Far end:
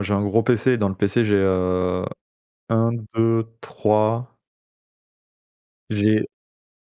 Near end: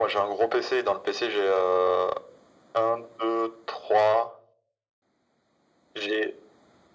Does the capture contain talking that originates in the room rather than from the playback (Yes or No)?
No